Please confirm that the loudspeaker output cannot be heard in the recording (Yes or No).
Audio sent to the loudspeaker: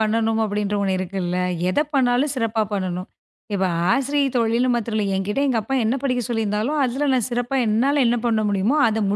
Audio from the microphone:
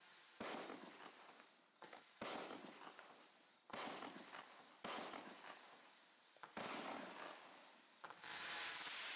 Yes